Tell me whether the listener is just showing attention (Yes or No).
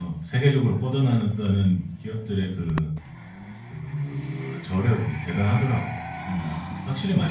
No